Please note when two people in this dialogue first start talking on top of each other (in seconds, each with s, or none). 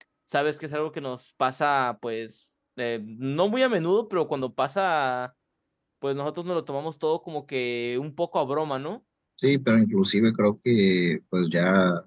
none